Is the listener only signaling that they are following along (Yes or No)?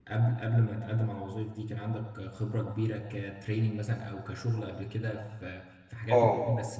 No